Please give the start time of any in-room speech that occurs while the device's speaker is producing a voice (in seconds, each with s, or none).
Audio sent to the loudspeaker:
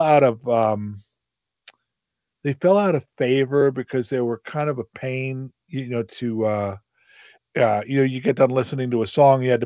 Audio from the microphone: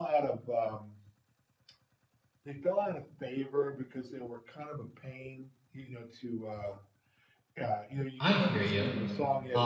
8.2 s